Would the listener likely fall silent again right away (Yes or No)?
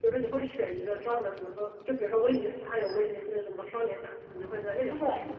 No